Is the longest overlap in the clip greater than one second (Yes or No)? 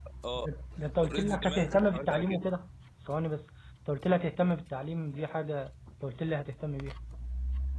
Yes